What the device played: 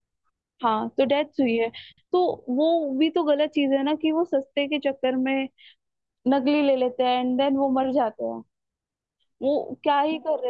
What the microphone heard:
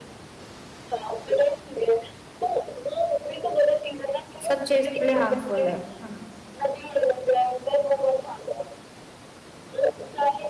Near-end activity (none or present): present